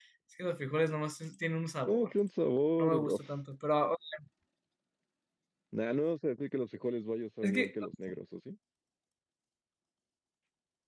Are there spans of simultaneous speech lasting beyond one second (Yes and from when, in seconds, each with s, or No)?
No